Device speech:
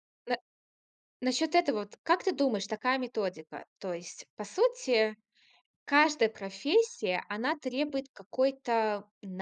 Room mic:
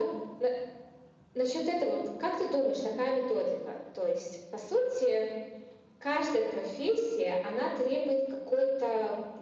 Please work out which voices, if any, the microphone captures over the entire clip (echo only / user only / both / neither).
echo only